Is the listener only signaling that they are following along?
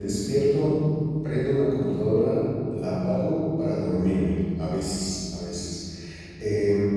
Yes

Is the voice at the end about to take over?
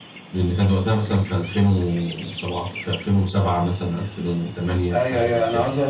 Yes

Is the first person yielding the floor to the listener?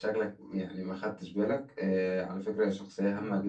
No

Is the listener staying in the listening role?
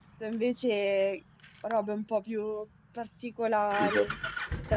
Yes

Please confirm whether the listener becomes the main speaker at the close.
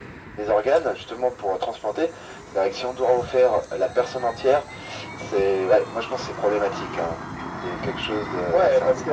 Yes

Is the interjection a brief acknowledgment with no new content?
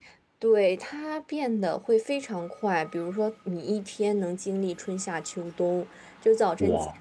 Yes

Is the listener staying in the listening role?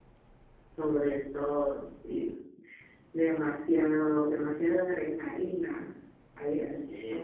No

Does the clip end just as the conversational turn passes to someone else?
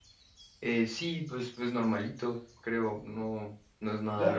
Yes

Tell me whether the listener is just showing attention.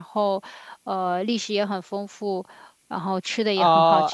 No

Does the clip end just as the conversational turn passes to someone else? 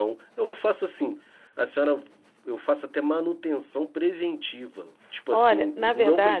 Yes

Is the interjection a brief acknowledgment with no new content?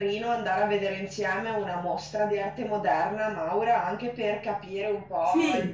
Yes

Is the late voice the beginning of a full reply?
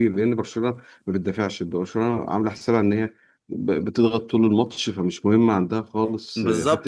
Yes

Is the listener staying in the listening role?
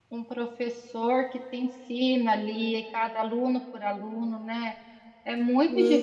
Yes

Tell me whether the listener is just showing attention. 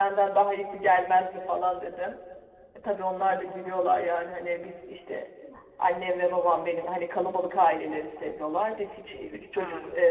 Yes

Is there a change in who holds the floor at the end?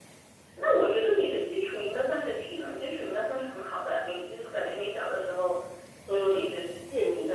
Yes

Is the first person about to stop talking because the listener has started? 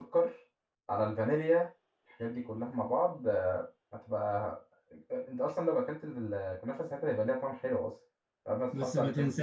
Yes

